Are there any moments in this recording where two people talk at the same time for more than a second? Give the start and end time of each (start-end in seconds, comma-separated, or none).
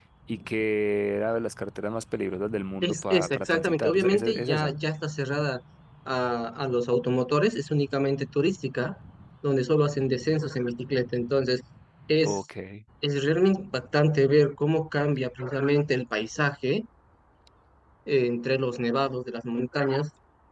2.8-4.7